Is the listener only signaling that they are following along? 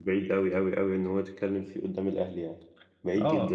No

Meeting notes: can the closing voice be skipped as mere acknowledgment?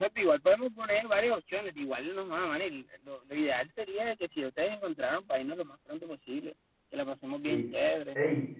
No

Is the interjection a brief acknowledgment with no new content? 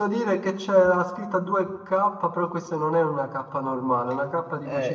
No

